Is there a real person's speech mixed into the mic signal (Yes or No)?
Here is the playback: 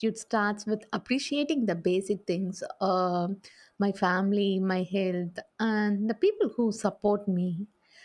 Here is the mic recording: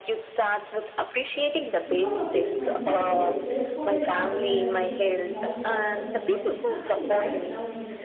Yes